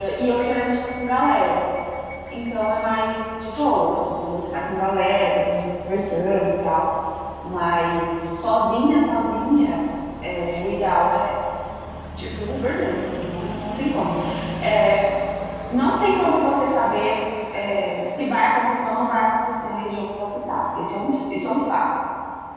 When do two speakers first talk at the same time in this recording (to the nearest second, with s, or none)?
none